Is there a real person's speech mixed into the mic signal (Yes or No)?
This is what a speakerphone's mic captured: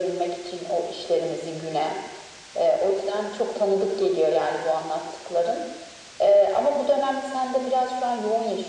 No